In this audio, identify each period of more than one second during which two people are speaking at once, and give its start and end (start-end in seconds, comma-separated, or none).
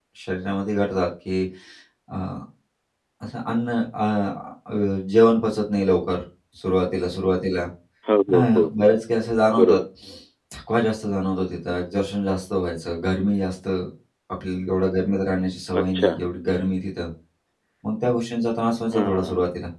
none